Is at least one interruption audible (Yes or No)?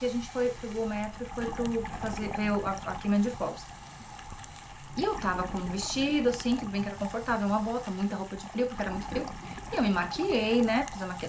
No